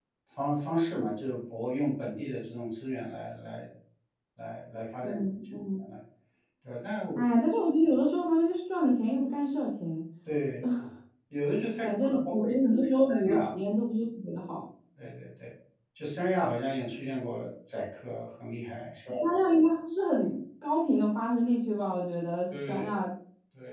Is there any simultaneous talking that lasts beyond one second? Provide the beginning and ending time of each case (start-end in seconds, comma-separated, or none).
11.8-13.5